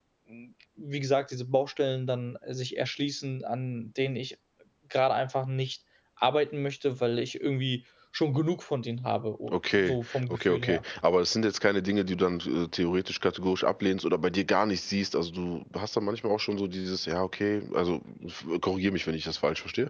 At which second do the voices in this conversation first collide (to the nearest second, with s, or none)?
10 s